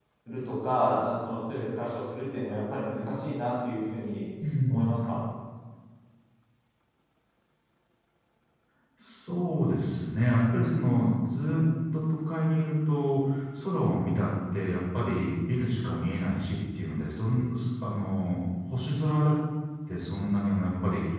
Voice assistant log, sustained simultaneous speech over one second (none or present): none